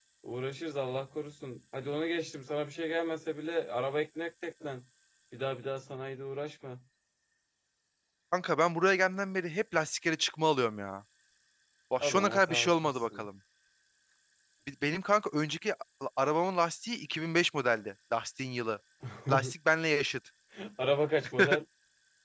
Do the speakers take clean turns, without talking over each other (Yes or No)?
No